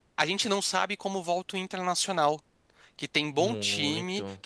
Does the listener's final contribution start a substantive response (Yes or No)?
No